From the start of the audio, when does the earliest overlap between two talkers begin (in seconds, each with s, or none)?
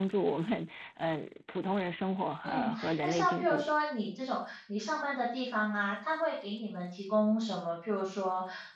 2.4 s